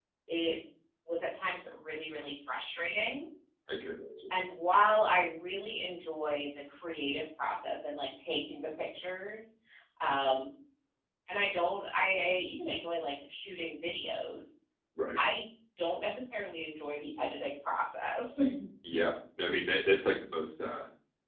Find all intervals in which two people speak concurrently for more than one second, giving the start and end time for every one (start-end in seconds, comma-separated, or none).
none